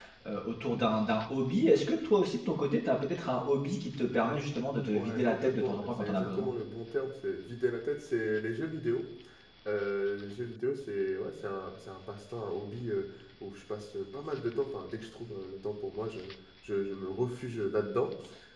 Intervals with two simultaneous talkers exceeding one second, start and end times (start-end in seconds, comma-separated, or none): 4.9-6.5